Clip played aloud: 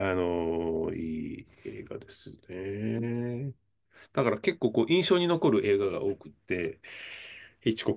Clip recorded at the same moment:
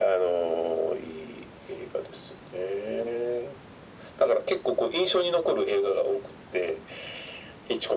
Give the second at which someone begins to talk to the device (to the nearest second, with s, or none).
none